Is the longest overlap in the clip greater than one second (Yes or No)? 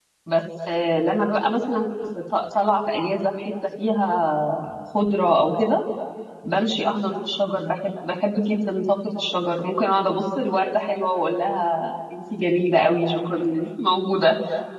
No